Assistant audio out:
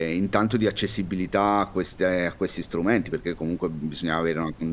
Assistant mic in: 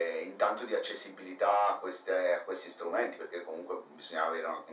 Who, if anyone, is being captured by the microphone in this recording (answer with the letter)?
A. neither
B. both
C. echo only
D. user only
C